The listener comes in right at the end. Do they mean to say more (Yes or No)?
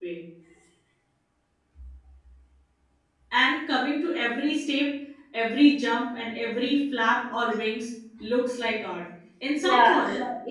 Yes